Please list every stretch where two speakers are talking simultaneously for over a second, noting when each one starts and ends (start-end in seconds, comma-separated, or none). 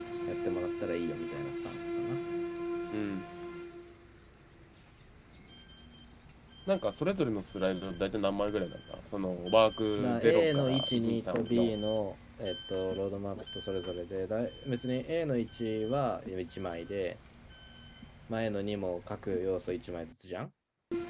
10.0-11.7